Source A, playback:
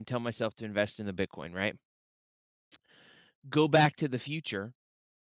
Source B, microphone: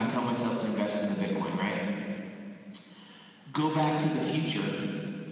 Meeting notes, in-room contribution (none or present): none